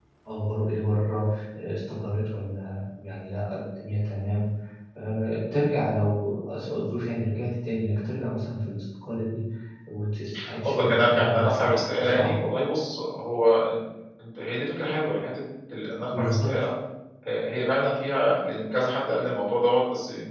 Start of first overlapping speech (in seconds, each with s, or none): 10.6 s